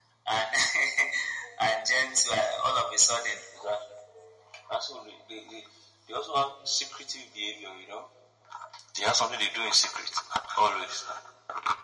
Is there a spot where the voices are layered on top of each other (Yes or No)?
No